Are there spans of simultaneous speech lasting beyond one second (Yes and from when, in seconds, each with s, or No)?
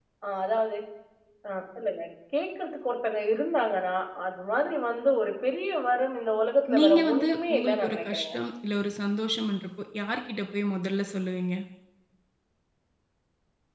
Yes, from 6.7 s